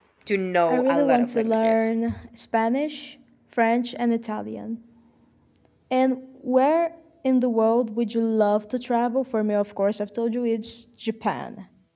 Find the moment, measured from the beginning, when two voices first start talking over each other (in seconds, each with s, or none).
0.7 s